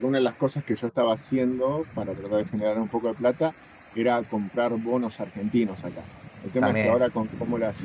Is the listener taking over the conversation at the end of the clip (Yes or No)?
No